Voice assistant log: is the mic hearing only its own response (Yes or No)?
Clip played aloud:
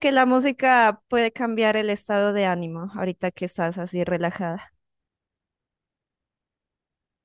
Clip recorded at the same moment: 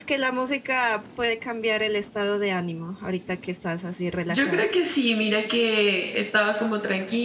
No